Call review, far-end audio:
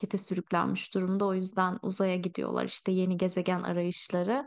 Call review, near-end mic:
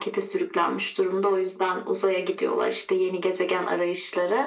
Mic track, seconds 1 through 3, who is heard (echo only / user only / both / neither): echo only